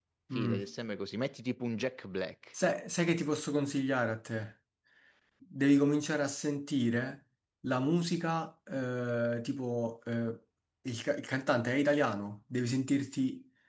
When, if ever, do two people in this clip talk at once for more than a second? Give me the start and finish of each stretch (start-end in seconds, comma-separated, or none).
none